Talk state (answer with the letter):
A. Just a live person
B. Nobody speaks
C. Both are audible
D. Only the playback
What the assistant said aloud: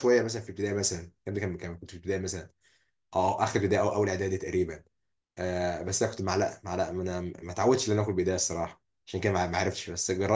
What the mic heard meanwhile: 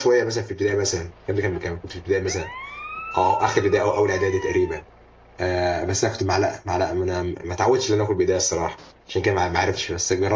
D